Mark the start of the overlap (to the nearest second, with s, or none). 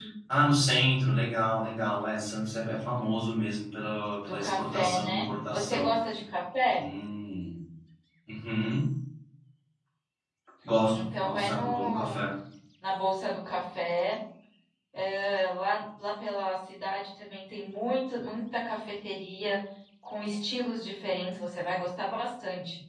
4 s